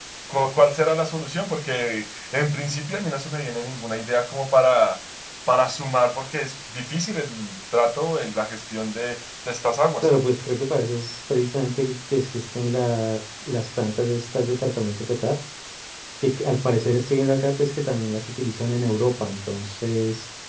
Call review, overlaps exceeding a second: none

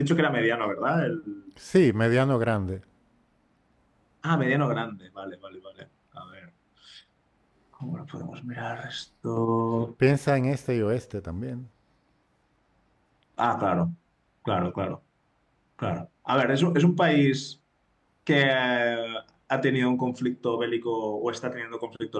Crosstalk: none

